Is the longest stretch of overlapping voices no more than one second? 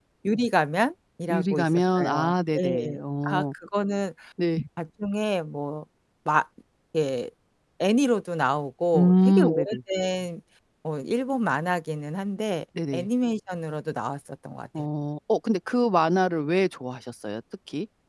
No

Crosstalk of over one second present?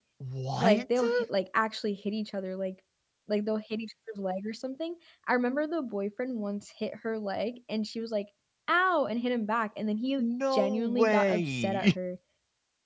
Yes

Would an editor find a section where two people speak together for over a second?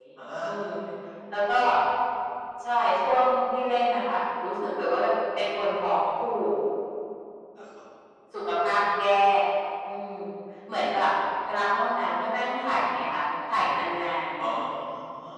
No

